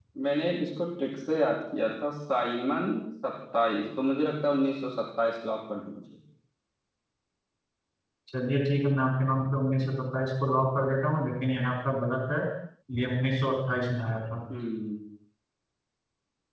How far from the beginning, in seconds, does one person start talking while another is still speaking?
none

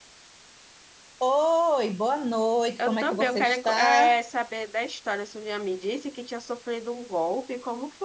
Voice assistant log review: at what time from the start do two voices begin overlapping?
2.8 s

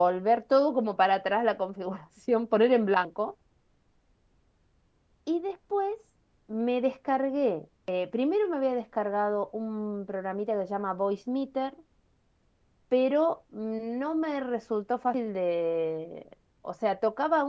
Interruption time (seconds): none

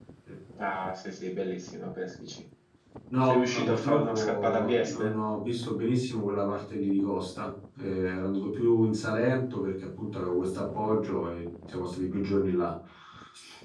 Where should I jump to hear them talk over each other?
3.3 s

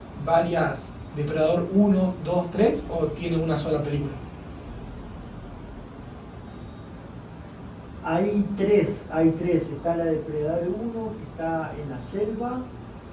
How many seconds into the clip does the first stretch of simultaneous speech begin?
none

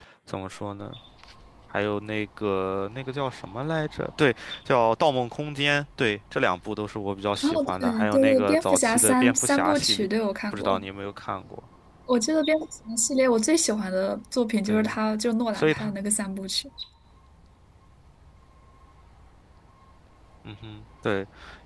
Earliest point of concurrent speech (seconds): 7.4 s

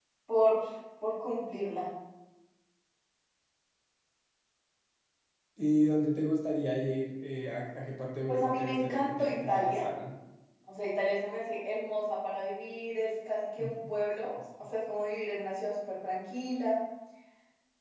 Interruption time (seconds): 8.3 s

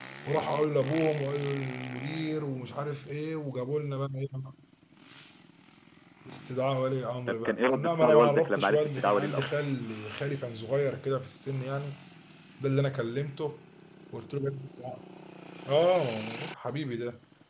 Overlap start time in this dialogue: 7.3 s

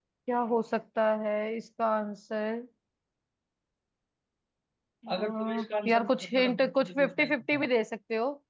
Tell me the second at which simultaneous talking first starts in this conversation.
5.2 s

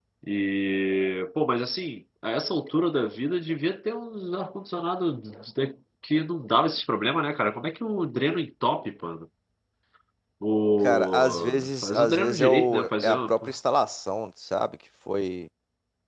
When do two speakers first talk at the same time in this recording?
10.8 s

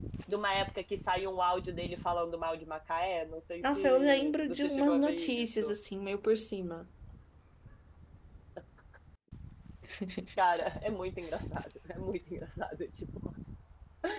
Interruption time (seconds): 3.6 s

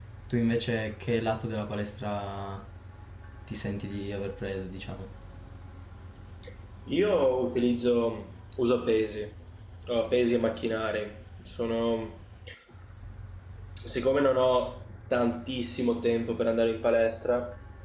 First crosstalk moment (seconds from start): none

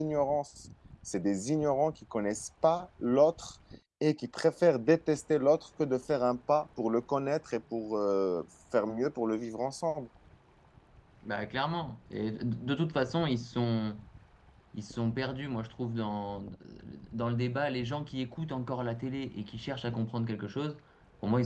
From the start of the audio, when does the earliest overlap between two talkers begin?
none

